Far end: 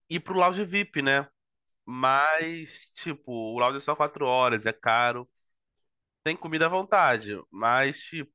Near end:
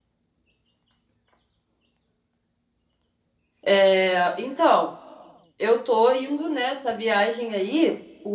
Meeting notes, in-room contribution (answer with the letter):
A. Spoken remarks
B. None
A